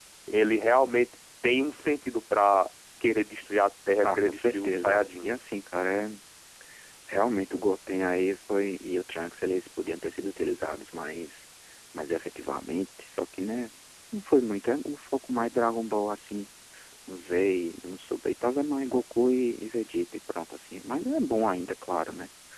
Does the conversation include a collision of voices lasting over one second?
Yes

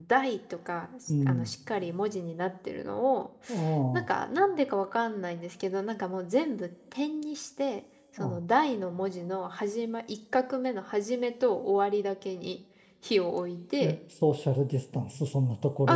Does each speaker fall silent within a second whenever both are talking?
Yes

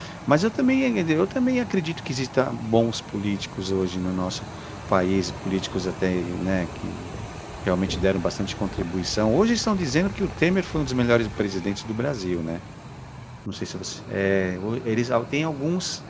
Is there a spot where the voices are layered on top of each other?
No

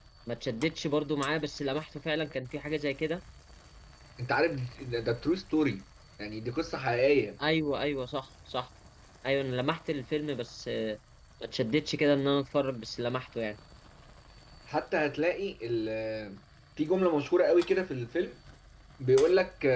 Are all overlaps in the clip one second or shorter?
Yes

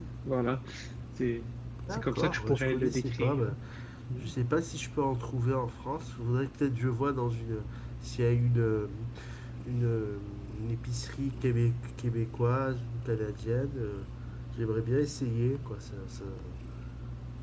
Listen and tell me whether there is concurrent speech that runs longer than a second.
Yes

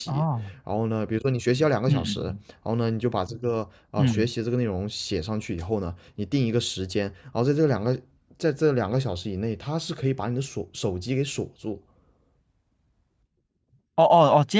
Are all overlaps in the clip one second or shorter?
Yes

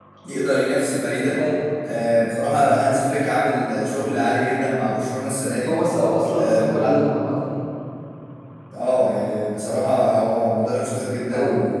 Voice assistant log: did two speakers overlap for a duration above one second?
No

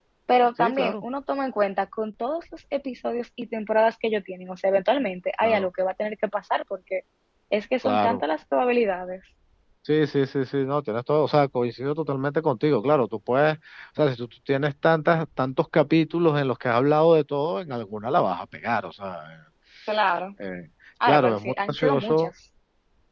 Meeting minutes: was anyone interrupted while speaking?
Yes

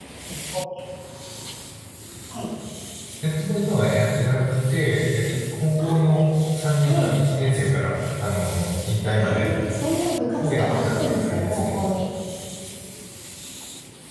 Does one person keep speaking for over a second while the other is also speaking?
Yes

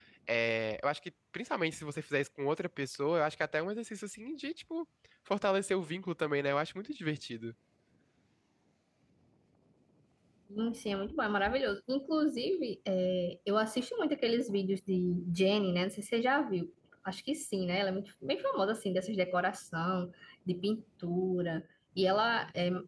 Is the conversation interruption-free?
Yes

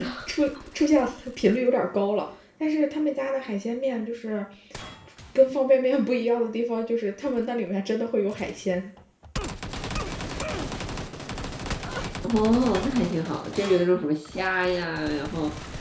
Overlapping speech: No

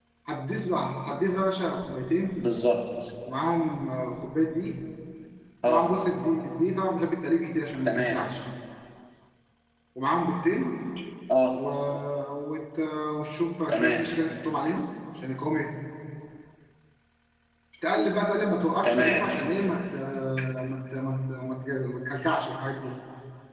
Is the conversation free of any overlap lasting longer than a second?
Yes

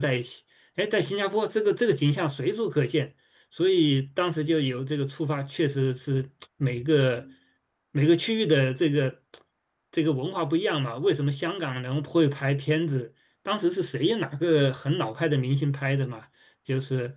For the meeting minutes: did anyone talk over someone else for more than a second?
No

